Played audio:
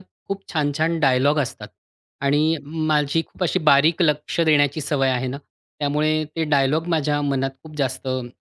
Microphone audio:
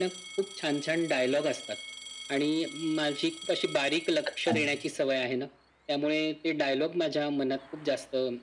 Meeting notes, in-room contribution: present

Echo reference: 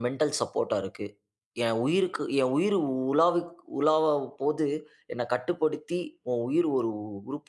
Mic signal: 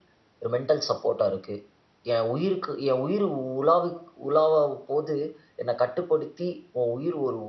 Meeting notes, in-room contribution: none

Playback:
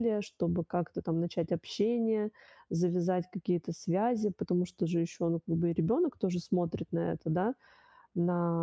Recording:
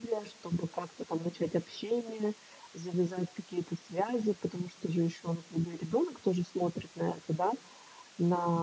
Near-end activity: present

